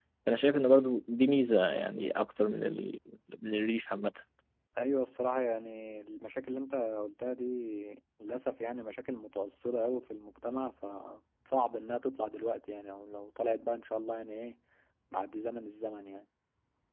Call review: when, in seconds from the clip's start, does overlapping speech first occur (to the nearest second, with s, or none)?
none